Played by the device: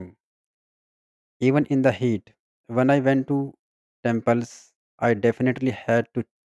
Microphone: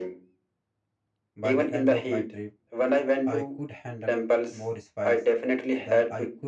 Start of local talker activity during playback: 1 s

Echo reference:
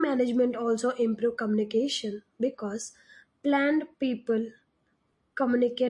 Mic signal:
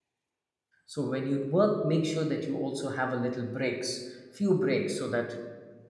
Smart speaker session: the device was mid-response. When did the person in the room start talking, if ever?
1 s

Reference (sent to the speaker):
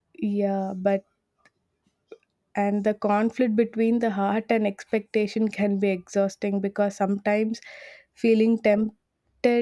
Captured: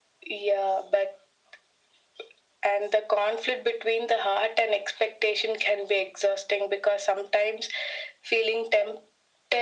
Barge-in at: none

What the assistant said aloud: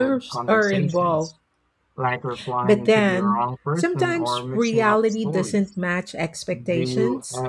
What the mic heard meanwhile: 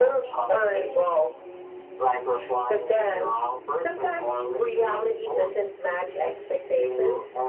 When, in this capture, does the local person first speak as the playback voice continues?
none

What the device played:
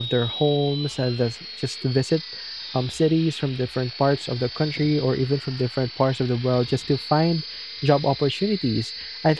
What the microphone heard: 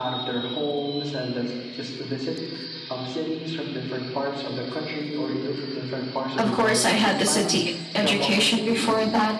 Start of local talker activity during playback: 6 s

